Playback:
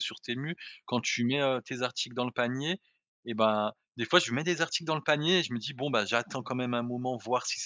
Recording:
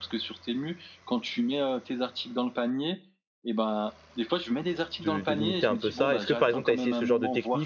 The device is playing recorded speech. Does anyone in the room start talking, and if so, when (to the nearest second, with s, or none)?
5 s